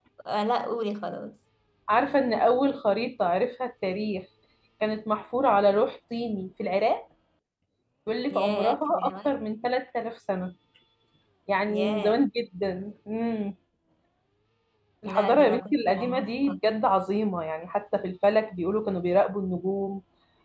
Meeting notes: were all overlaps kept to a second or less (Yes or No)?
No